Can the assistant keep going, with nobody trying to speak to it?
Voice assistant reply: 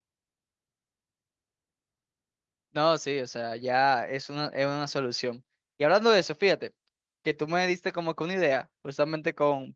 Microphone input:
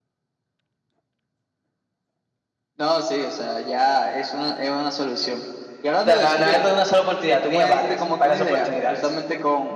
No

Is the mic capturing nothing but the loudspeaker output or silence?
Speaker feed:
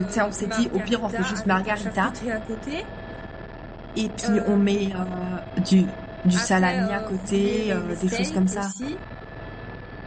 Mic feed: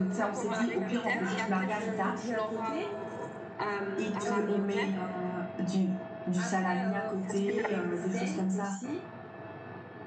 No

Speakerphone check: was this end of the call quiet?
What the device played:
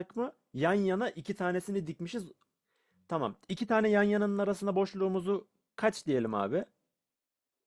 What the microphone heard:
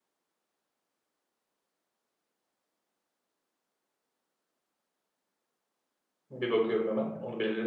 No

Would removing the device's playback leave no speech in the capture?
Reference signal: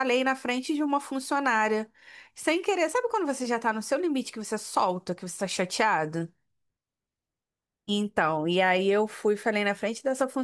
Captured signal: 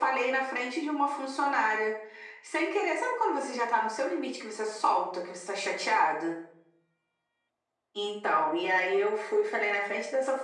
Yes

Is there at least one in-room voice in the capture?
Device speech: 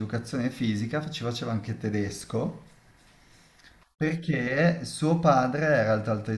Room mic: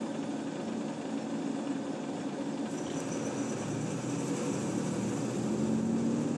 No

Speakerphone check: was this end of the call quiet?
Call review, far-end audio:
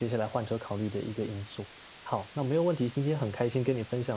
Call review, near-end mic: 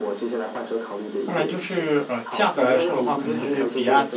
No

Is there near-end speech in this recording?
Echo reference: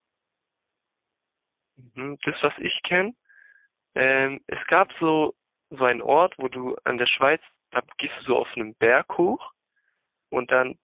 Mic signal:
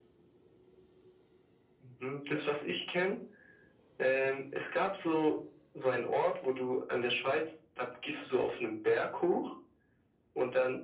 No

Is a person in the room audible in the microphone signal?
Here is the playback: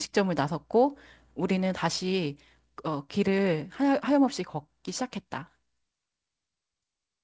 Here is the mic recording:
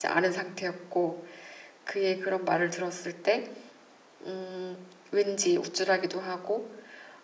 Yes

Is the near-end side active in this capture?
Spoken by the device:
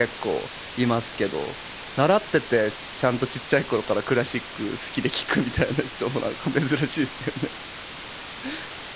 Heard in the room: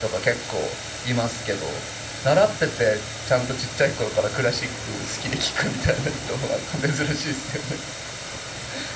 No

